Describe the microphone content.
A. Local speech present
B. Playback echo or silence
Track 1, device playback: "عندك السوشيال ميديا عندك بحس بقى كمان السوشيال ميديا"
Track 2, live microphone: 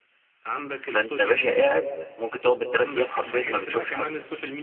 A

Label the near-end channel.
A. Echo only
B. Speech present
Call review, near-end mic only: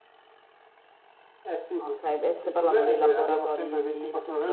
B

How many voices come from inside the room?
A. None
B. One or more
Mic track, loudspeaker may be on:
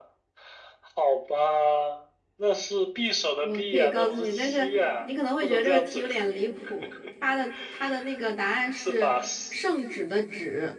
B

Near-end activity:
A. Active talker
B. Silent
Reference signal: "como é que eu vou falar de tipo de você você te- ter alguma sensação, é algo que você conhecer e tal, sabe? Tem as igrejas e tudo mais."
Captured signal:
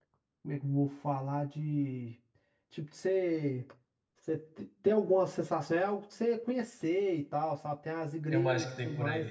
A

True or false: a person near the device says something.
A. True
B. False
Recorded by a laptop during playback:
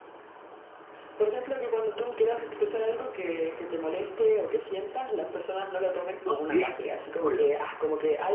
A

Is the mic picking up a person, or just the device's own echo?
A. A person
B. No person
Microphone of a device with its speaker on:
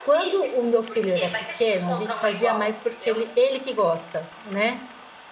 A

